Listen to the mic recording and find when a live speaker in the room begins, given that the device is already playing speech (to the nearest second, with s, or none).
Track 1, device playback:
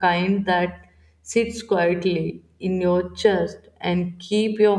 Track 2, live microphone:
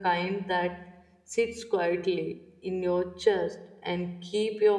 none